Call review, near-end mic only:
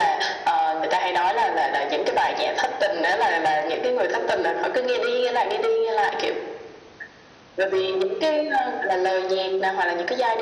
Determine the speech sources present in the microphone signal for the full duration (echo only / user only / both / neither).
echo only